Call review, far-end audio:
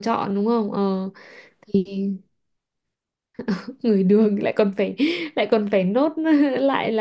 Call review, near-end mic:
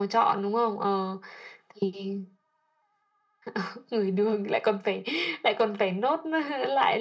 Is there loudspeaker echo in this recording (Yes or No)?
Yes